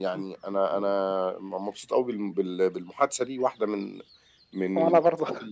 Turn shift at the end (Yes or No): No